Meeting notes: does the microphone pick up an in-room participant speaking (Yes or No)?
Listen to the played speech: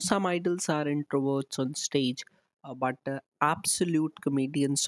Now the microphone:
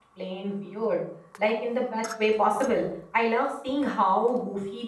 Yes